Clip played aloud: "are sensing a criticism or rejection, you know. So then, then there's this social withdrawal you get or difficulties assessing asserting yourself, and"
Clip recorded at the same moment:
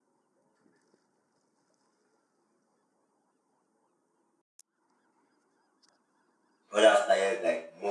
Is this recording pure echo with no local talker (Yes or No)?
No